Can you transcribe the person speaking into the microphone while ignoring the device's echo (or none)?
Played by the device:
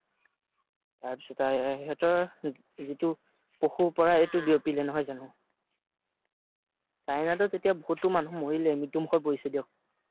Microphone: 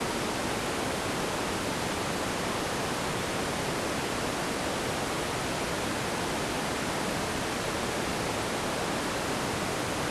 none